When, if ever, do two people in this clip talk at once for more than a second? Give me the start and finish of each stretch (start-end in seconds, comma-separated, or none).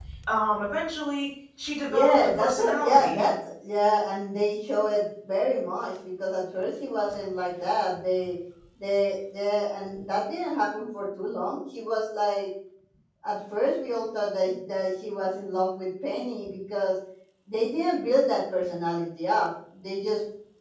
1.9-3.2